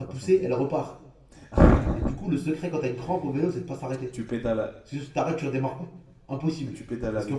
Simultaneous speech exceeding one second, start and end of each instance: none

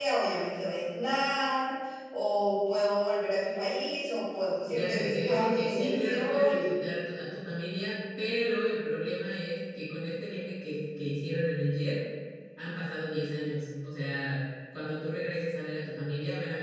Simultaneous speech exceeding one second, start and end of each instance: 4.7-6.6

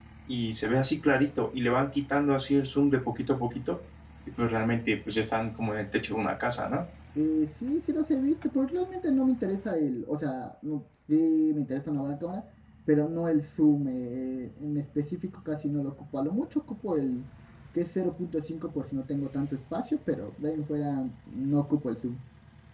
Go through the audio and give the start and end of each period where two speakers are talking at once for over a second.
none

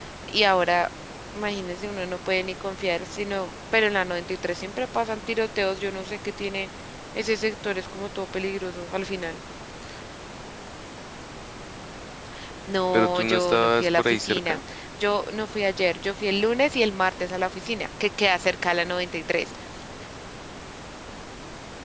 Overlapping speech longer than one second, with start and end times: 12.9-14.6

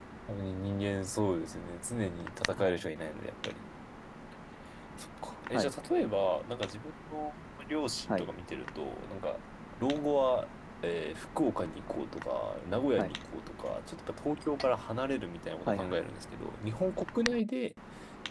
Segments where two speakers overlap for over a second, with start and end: none

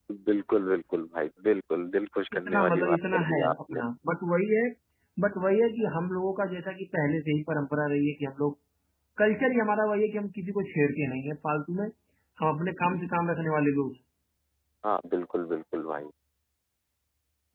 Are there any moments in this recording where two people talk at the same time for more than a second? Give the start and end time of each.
2.3-3.8

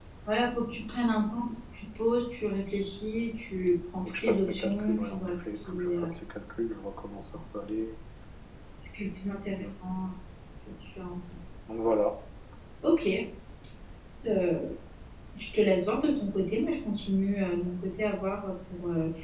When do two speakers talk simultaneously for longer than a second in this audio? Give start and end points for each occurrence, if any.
4.0-6.0

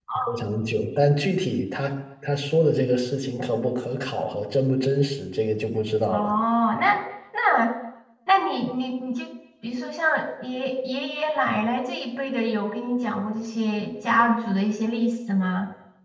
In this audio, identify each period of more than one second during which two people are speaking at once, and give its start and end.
none

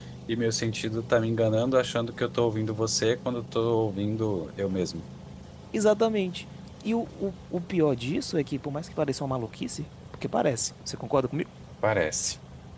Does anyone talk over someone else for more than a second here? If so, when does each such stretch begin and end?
none

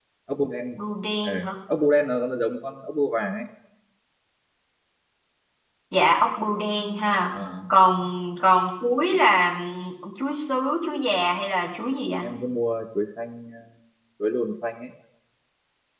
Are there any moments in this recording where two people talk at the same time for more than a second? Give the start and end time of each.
none

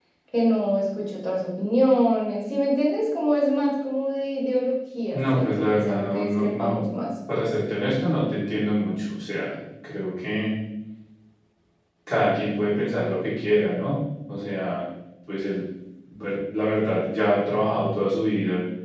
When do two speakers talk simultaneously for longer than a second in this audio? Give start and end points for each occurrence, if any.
5.1-6.8

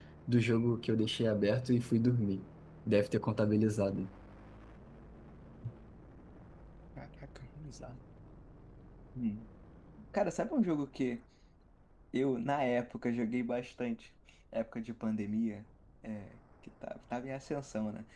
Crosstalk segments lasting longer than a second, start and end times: none

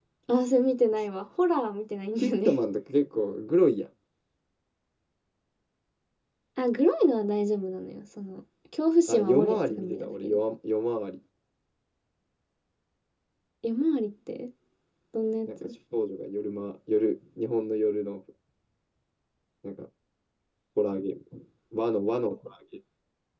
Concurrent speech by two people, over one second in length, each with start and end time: 9.1-10.4

